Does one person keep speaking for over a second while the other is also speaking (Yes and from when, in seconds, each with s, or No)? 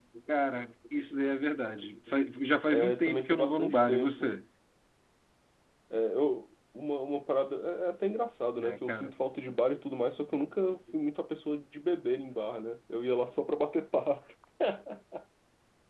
Yes, from 2.7 s